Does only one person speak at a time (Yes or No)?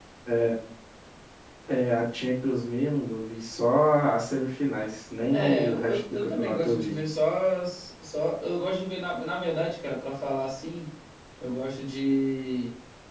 No